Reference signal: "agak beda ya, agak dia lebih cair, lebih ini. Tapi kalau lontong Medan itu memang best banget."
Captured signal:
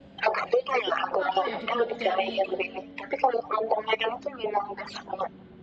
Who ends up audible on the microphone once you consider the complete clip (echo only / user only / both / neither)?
both